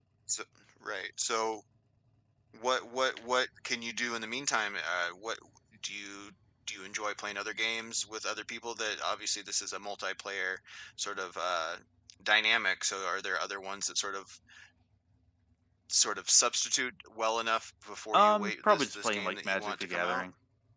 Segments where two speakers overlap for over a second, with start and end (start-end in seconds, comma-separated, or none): 18.1-20.2